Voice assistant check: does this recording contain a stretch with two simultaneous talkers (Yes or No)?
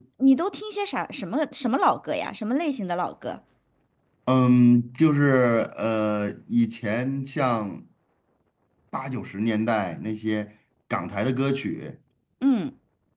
No